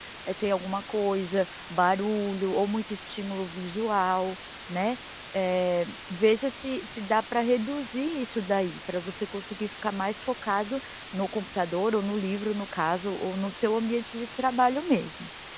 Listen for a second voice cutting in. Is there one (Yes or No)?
No